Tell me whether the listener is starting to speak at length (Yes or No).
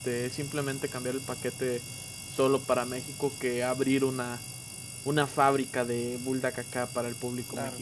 Yes